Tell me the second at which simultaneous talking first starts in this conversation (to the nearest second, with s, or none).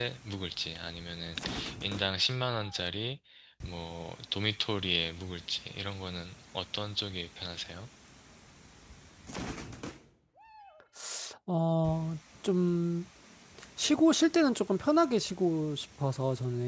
none